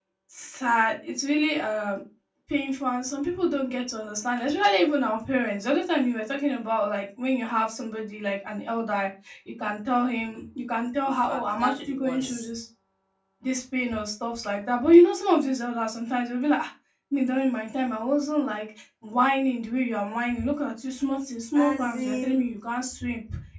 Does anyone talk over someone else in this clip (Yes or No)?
Yes